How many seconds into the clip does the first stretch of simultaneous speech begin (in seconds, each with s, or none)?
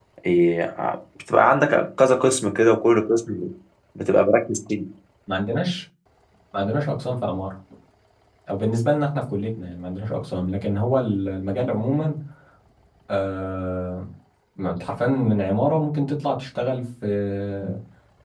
none